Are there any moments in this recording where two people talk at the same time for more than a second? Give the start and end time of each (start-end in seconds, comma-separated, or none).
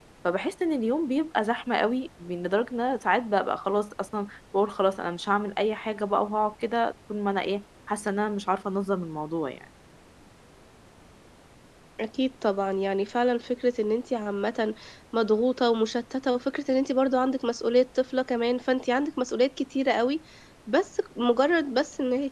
none